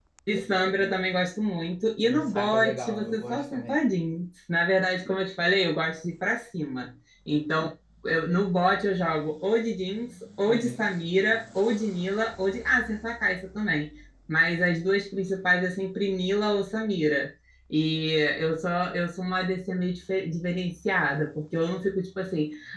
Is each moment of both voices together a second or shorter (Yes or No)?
No